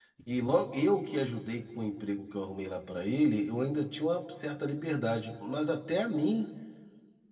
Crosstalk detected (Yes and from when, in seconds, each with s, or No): No